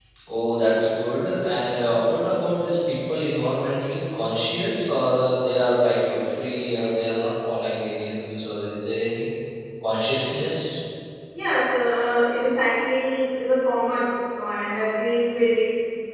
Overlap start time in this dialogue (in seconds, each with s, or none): none